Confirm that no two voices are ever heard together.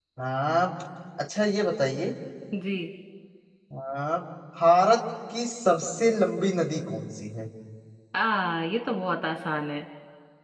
Yes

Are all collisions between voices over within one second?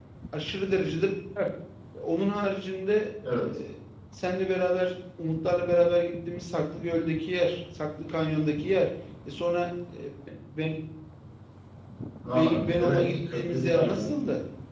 No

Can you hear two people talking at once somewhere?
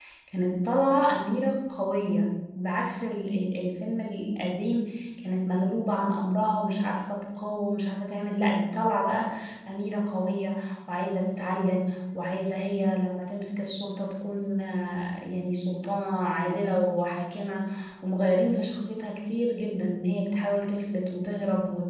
No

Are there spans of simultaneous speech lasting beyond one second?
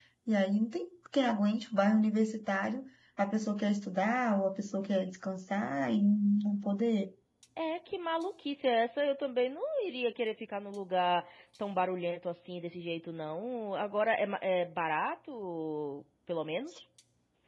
No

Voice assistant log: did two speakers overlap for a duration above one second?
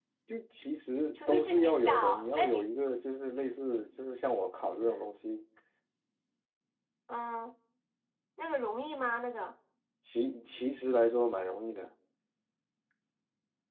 Yes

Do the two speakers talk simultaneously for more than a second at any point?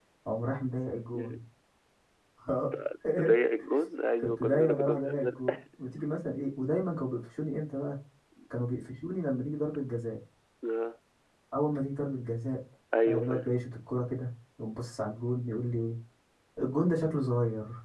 Yes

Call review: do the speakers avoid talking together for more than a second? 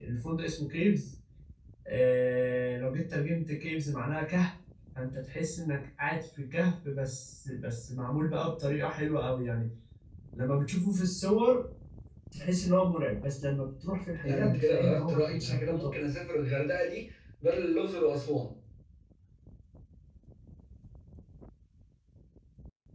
No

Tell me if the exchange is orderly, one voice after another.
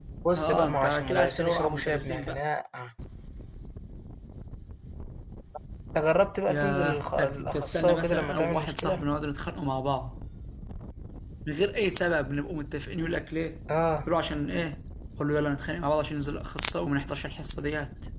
No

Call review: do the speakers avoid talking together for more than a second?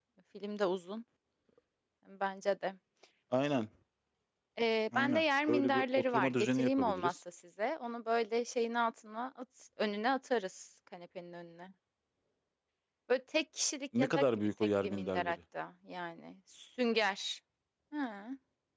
No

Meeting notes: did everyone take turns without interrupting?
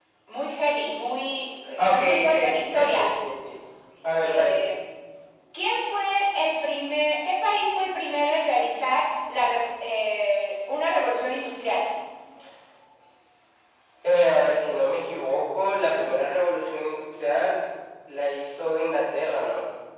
No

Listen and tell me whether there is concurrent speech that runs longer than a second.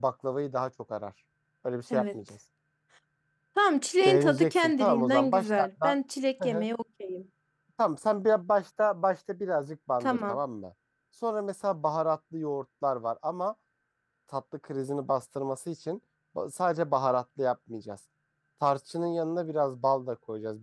Yes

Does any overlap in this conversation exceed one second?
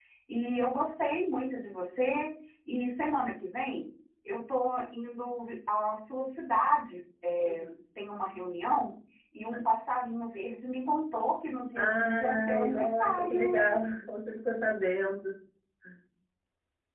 Yes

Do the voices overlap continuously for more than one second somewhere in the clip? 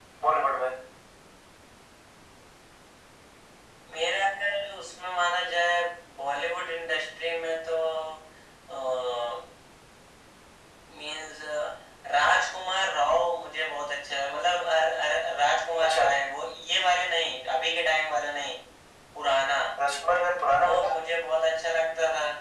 No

